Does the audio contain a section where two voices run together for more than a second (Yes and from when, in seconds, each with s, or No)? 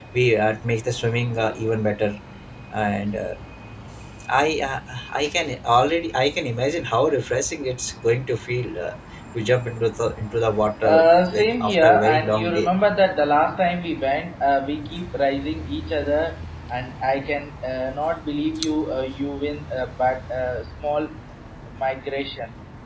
Yes, from 10.8 s